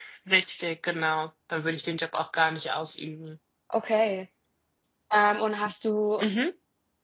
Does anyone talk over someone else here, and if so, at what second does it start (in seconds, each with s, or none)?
none